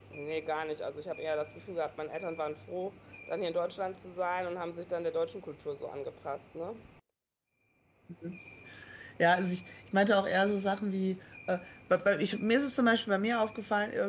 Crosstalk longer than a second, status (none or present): none